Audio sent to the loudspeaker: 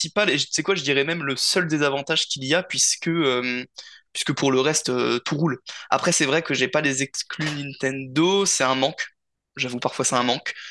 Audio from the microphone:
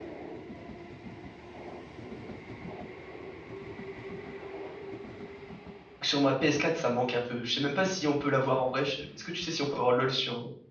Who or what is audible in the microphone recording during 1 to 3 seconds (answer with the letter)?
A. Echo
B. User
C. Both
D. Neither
D